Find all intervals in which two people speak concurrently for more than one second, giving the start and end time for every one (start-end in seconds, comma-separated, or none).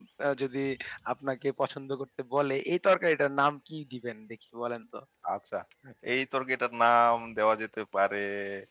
none